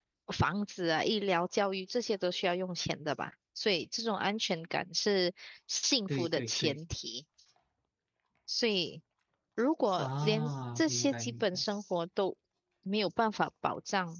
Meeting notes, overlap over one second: present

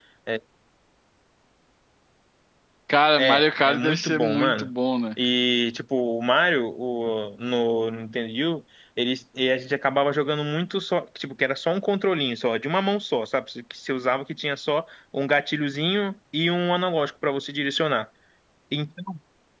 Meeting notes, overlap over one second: present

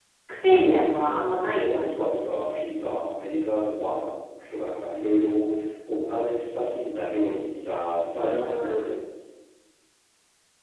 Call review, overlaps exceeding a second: present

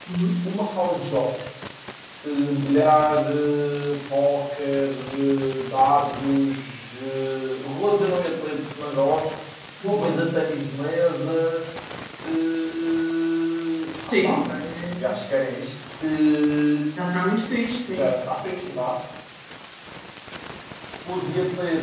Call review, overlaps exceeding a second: none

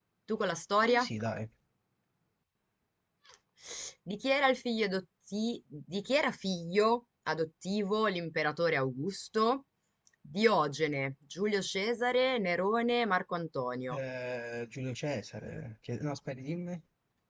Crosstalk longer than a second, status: none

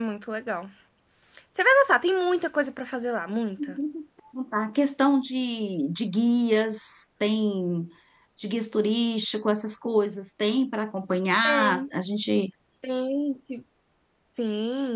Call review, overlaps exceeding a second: none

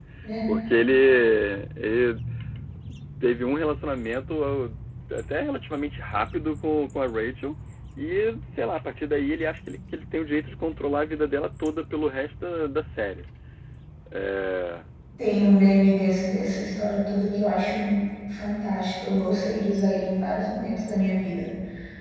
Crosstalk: none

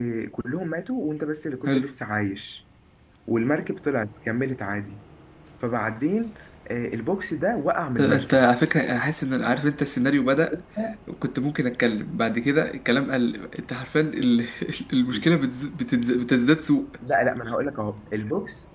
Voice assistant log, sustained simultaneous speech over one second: none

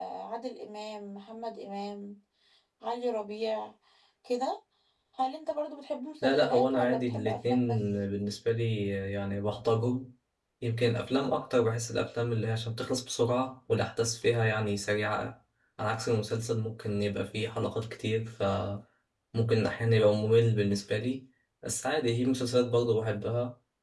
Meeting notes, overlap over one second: present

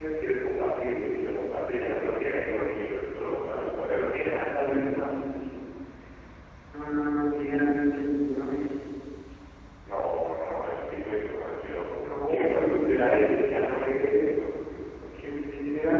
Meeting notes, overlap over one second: present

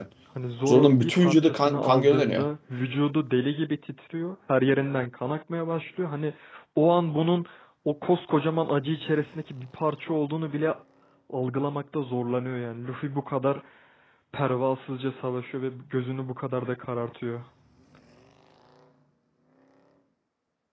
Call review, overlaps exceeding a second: present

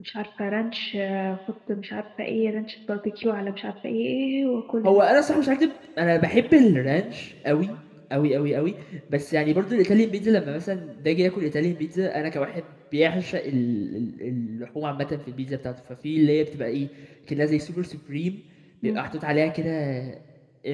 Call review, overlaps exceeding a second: none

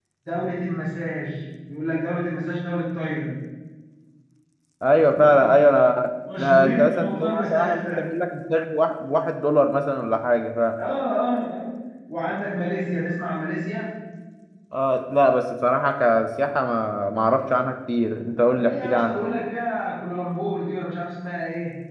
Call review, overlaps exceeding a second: present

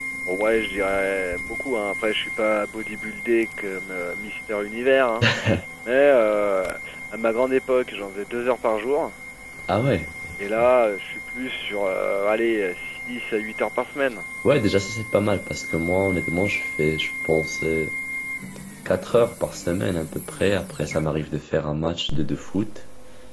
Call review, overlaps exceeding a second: none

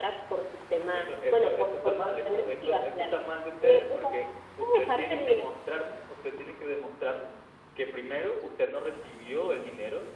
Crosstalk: present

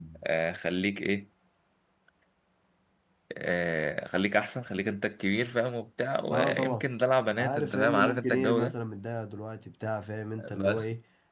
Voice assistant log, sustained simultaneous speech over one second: present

